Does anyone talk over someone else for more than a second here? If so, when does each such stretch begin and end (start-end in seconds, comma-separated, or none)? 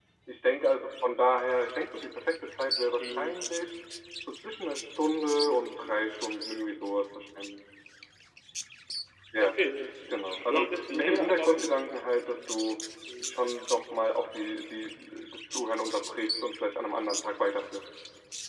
10.1-11.7